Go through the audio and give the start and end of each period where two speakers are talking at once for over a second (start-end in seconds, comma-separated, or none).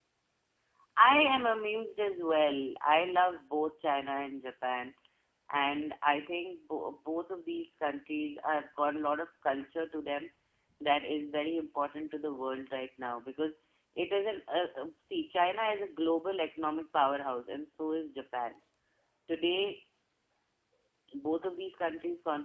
none